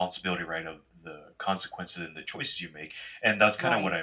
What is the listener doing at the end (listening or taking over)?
listening